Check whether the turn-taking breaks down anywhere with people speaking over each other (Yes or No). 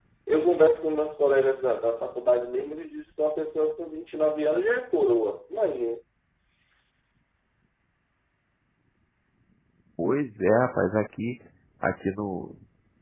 No